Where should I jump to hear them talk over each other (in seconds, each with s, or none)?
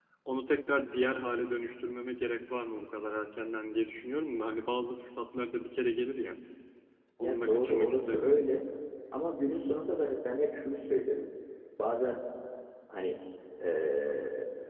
7.2 s